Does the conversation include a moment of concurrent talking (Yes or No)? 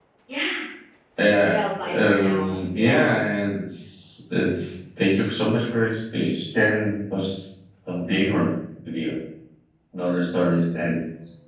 Yes